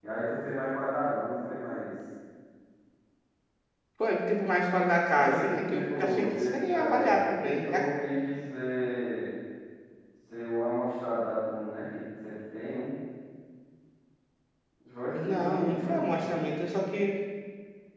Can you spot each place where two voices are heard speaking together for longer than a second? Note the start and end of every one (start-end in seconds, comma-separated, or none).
5.1-7.8, 15.1-16.4